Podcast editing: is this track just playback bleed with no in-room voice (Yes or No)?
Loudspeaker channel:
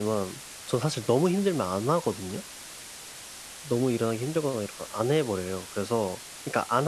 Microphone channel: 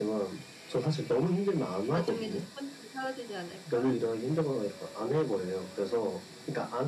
No